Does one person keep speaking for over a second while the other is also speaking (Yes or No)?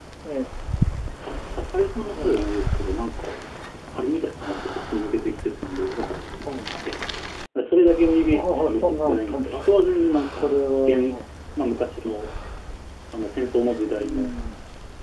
Yes